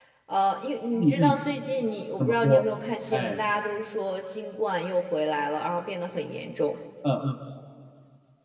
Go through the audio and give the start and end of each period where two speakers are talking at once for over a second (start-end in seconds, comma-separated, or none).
none